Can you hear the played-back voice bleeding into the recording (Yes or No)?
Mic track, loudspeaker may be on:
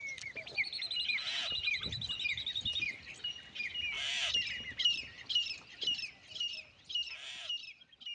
No